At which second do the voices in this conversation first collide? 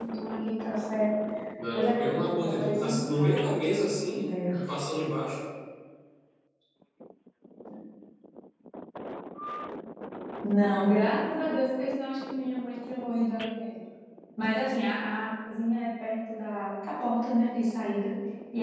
1.7 s

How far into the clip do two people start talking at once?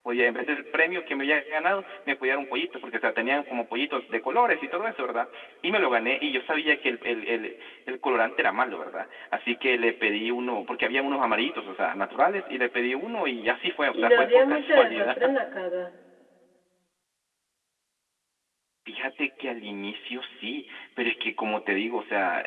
13.9 s

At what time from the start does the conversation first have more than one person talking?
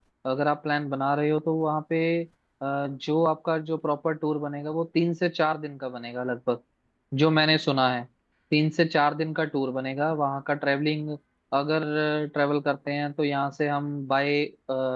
none

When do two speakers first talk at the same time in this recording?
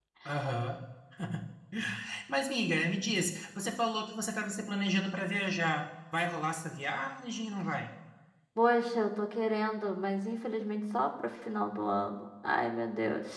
none

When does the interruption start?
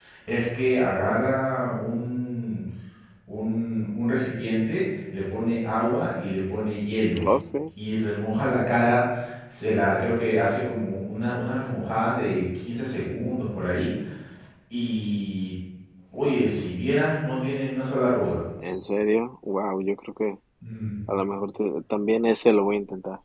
none

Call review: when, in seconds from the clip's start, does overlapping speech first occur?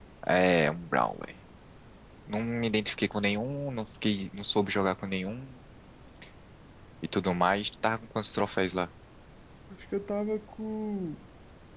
none

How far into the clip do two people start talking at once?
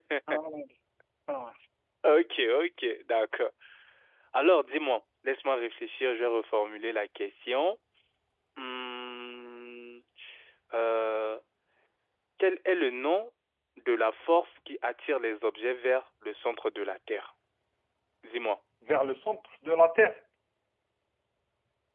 none

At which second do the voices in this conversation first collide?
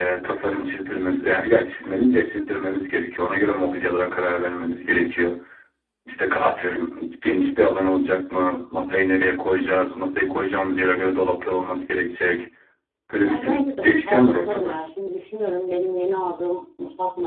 13.2 s

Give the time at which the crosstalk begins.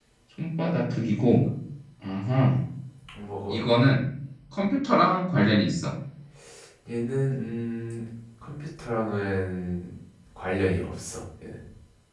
none

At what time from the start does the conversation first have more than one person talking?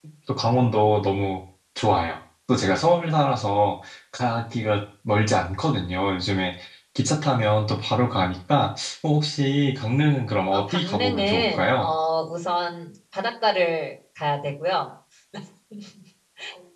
10.5 s

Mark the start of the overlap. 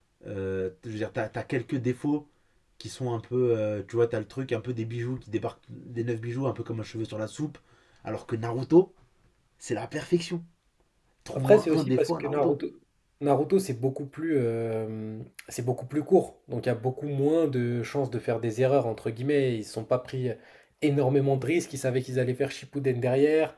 11.3 s

